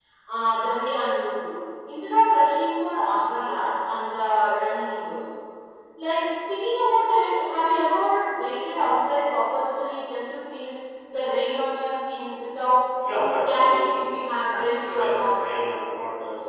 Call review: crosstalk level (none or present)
present